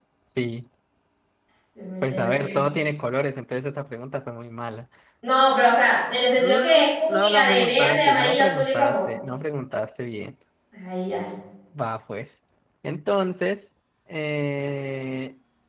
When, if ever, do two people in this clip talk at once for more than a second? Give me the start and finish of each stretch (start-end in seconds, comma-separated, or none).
6.4-9.1